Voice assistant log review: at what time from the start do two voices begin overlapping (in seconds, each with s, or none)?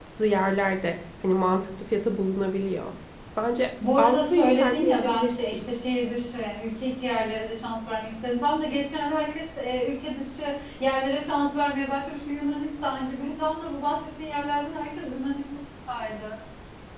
4.0 s